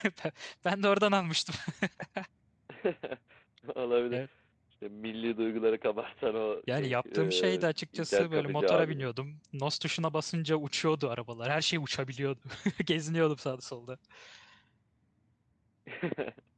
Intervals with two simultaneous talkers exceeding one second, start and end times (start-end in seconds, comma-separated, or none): 6.7-9.1